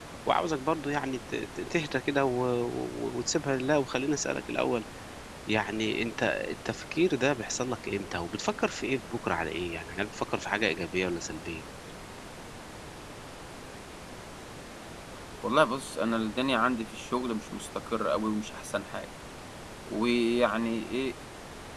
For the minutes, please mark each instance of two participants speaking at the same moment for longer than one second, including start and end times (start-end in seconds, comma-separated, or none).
none